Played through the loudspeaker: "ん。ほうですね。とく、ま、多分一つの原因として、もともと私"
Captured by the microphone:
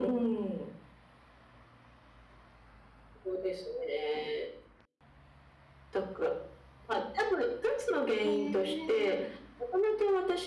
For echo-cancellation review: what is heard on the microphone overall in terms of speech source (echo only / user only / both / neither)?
both